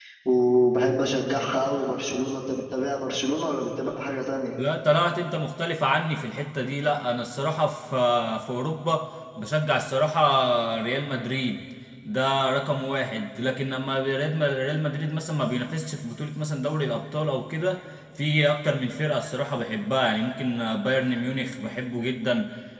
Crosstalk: none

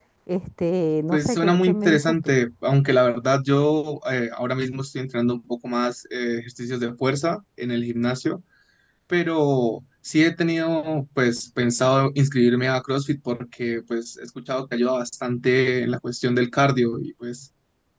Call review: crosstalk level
present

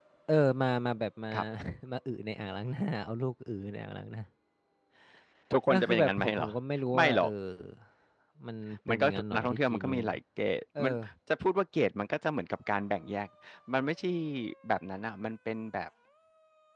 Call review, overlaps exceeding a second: present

